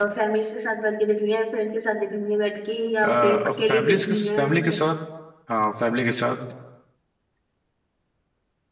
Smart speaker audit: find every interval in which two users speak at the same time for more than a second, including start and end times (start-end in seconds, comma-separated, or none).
3.0-4.8